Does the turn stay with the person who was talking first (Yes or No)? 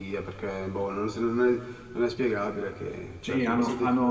No